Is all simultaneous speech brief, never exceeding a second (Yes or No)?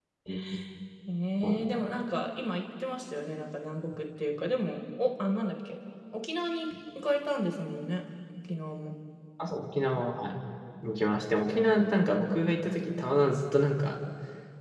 Yes